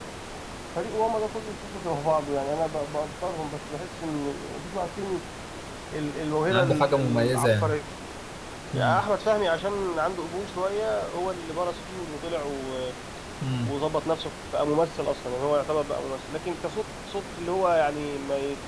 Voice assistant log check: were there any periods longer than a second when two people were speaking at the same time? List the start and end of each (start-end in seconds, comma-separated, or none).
6.5-7.8